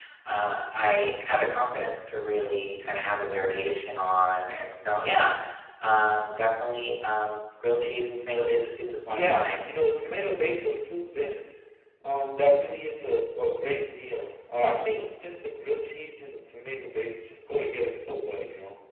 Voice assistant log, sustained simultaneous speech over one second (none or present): none